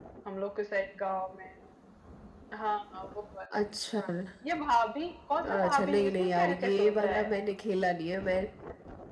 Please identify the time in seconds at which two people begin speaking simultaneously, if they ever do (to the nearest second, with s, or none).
5 s